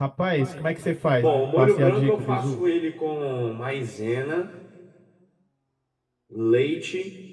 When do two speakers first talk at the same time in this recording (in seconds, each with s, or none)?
1.2 s